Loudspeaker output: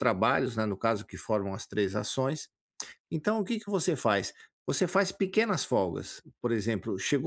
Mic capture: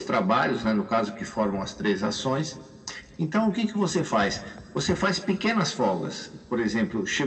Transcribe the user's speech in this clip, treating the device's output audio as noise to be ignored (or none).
none